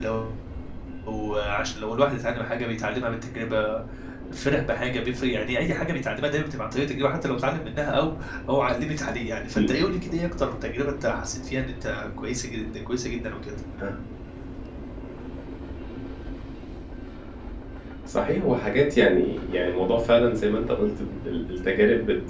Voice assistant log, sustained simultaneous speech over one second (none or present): none